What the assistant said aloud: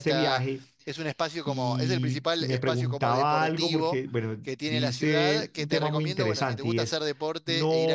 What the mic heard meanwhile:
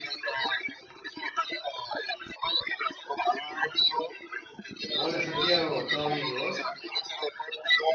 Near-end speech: present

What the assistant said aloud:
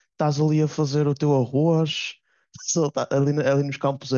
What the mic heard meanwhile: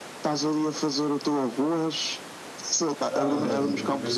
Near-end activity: present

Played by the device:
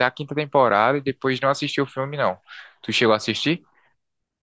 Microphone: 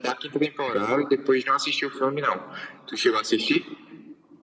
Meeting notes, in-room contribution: none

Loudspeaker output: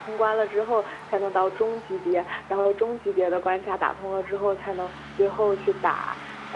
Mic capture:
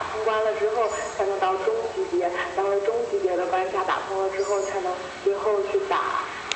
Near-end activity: none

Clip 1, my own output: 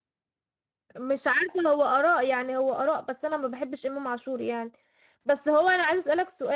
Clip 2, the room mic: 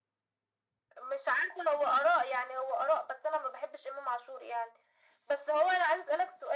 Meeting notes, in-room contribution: none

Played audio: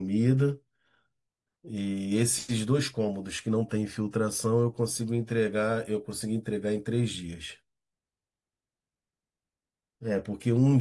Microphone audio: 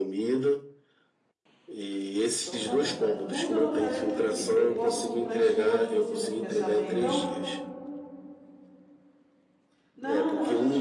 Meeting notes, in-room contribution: present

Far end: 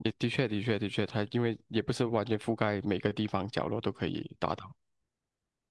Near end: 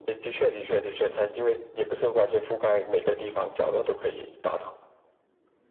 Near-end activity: none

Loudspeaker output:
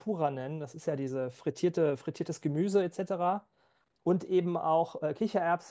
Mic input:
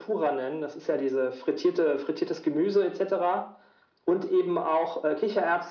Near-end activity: none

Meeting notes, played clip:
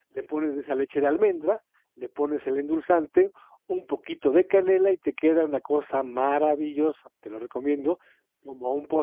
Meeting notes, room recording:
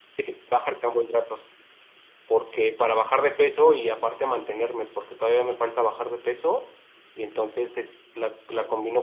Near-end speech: present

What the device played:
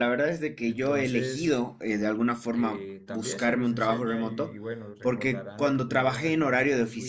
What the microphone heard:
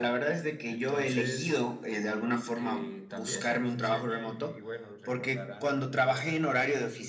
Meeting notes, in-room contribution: none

